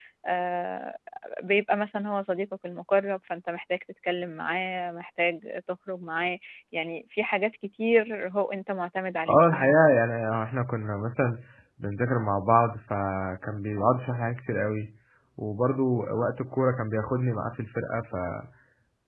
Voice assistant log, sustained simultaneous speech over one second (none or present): none